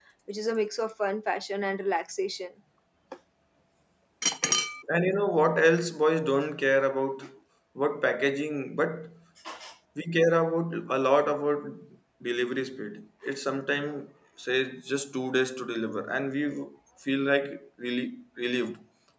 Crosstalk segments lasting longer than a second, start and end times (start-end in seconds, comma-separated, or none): none